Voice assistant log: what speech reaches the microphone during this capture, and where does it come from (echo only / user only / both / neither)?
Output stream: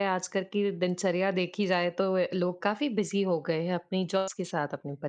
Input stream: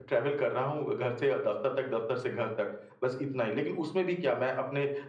user only